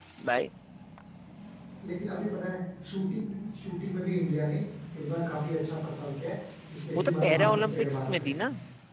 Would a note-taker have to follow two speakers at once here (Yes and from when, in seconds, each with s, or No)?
Yes, from 7.0 s